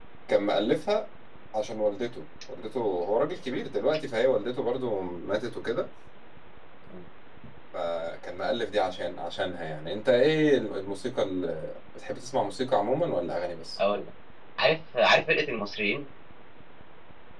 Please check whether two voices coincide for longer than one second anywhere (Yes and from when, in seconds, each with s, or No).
No